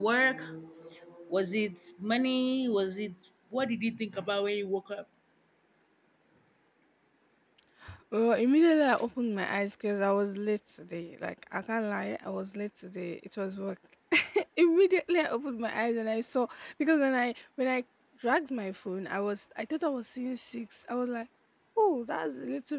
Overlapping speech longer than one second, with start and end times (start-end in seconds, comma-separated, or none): none